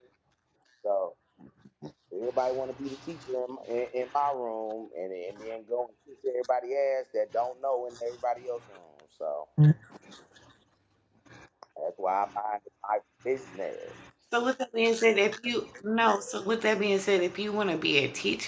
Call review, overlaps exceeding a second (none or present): none